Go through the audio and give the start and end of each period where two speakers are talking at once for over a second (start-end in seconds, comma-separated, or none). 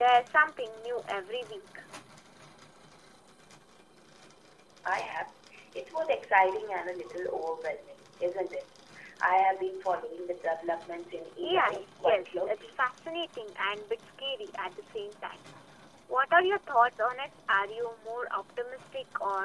11.4-12.7